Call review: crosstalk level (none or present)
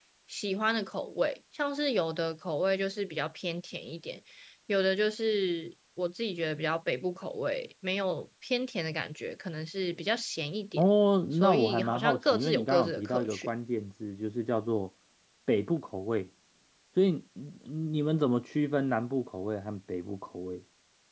present